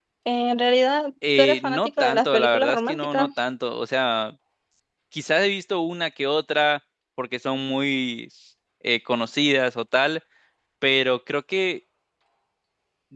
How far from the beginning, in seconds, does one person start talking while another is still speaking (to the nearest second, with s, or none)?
1 s